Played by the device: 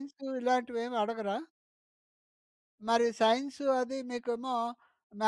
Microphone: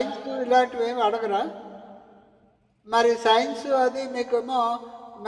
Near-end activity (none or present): none